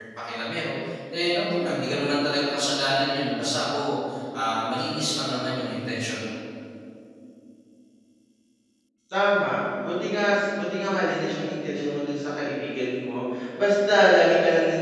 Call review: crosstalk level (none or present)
none